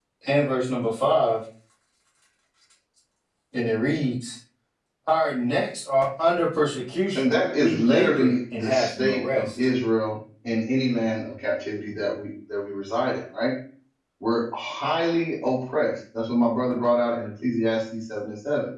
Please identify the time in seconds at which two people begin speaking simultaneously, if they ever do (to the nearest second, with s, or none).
7 s